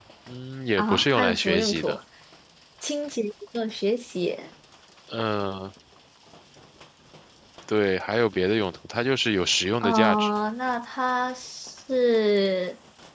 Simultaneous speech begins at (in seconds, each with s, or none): 0.8 s